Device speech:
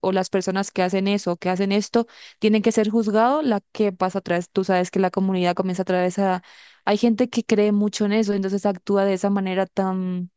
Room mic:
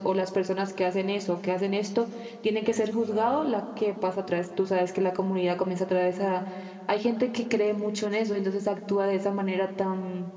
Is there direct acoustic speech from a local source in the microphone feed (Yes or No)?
Yes